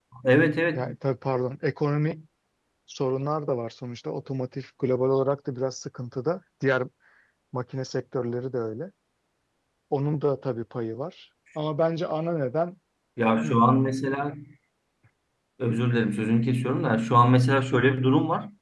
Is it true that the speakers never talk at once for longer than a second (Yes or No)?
Yes